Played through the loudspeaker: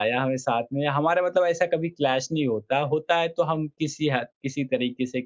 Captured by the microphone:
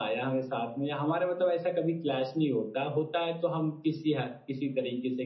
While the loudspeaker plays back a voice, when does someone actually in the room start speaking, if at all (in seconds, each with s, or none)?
none